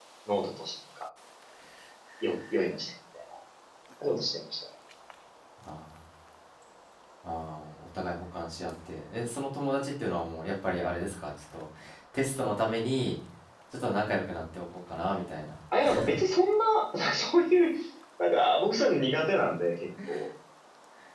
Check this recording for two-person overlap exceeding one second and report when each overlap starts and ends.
none

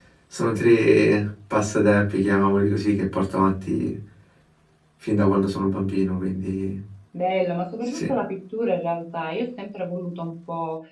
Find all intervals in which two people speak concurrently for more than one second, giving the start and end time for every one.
none

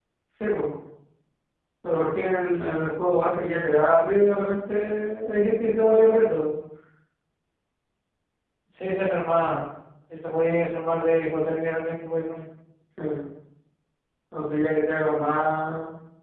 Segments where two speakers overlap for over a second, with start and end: none

